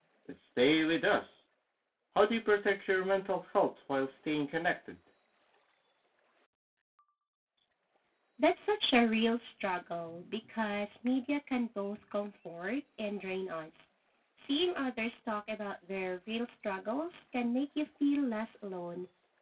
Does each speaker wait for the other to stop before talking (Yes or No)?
Yes